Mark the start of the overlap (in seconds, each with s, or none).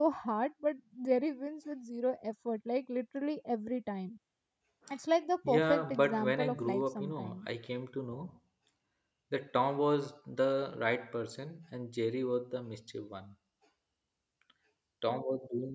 5.5 s